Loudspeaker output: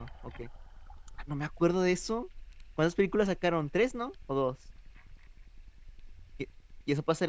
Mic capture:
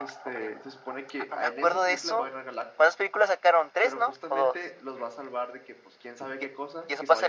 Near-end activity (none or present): present